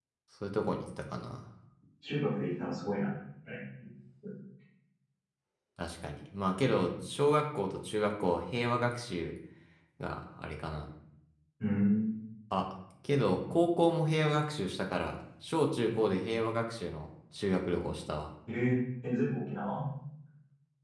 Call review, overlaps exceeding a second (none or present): none